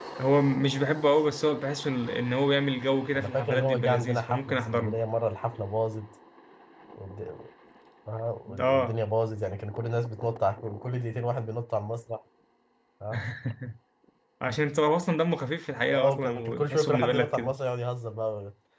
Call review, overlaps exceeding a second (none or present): present